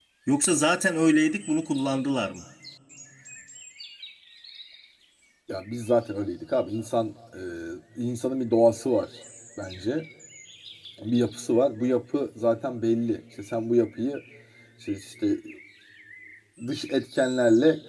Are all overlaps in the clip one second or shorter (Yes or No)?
Yes